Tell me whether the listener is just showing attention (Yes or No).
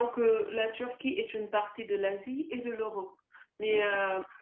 Yes